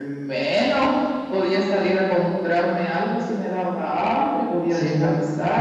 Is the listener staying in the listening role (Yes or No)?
No